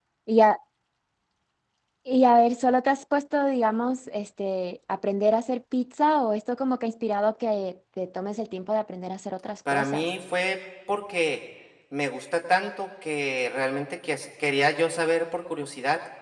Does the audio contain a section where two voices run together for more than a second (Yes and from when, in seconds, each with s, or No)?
No